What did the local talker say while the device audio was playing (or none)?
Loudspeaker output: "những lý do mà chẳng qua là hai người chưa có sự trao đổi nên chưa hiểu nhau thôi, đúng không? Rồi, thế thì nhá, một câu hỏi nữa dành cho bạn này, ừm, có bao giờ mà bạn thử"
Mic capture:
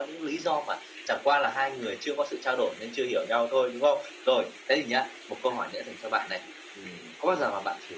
none